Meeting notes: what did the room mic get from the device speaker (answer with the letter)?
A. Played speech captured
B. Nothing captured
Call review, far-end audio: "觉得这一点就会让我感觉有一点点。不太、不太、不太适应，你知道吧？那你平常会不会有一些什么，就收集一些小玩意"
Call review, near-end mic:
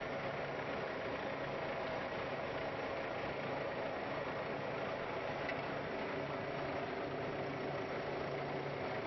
B